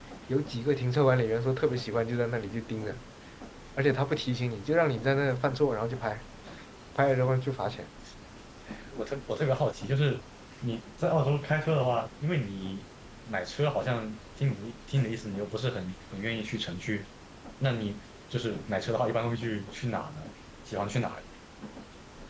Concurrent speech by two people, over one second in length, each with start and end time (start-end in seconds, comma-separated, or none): none